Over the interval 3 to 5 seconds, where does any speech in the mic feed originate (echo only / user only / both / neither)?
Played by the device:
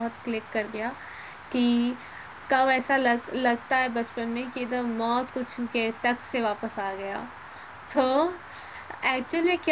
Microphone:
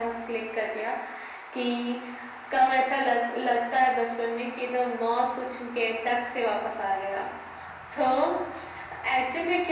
echo only